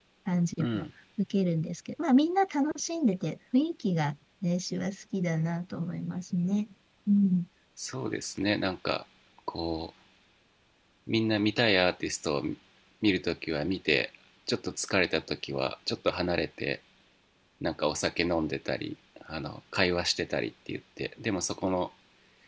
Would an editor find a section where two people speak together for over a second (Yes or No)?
No